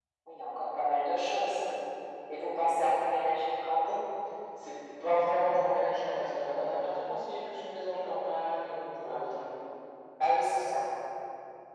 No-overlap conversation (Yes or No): Yes